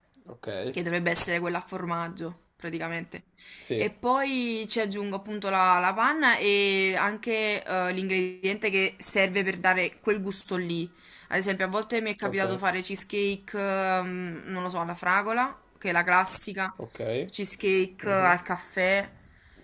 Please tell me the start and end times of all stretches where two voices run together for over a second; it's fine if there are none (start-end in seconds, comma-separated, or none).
none